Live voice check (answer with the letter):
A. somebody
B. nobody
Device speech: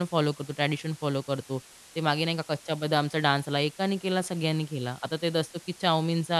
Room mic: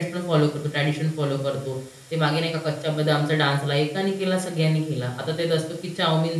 B